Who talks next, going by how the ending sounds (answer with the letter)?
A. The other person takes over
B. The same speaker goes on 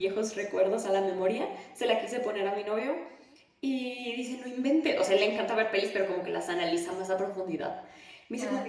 B